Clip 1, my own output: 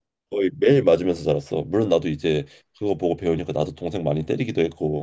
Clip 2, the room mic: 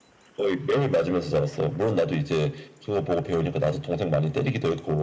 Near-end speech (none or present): none